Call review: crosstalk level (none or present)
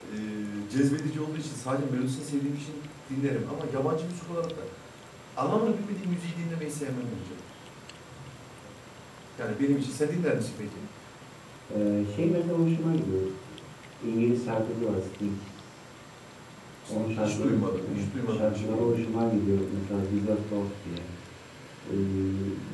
present